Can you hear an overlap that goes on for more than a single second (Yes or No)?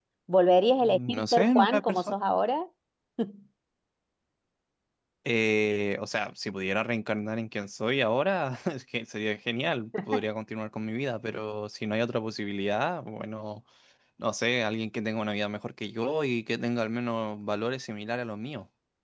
Yes